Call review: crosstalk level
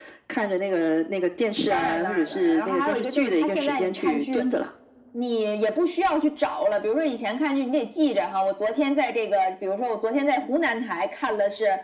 present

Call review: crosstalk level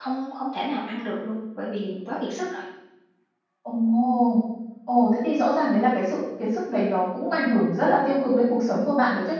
none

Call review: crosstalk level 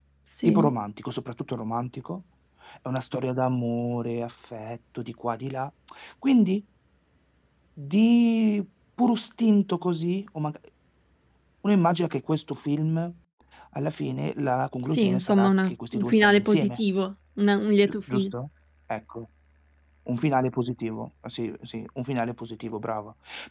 present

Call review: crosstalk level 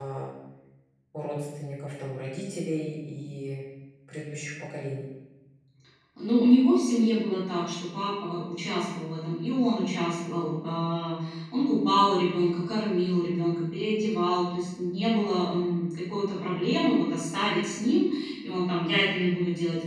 none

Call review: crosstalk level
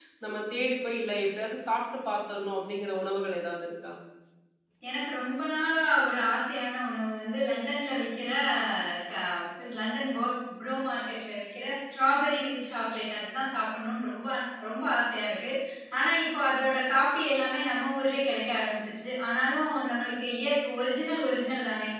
none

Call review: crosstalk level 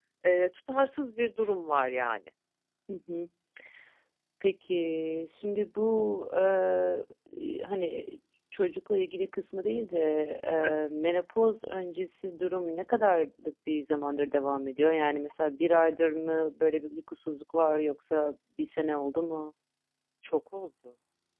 none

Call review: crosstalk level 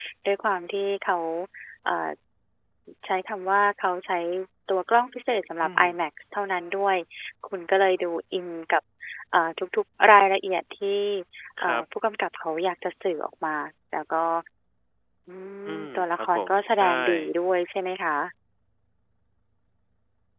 present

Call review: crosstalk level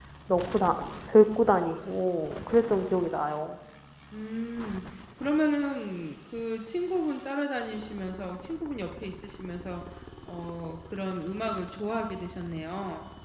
none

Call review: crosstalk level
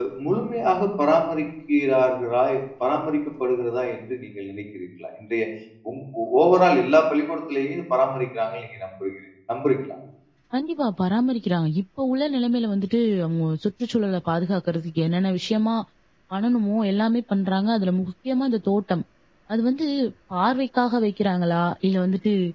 none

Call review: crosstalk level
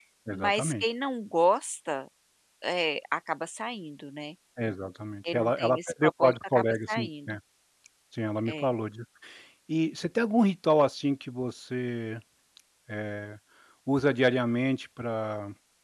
present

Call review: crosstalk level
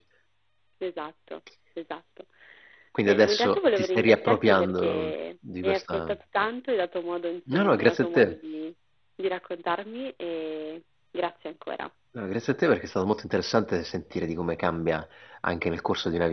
present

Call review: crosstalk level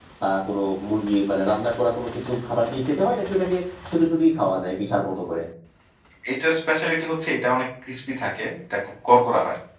none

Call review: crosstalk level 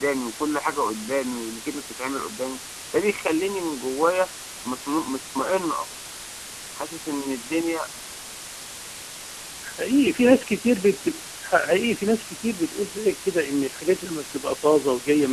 none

